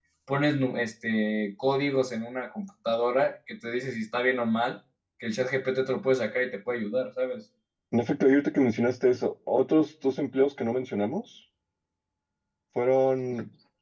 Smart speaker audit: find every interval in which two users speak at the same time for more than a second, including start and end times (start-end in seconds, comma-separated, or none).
none